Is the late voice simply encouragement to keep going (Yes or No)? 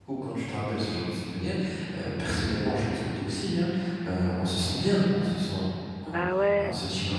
Yes